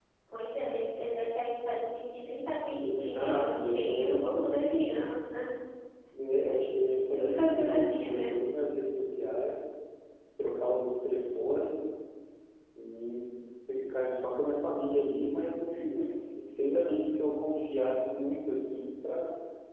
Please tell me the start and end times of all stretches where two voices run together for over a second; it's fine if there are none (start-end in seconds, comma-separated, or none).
2.8-5.0, 6.9-8.3